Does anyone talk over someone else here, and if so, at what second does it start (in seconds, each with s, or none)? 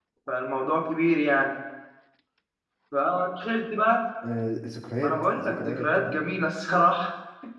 5.0 s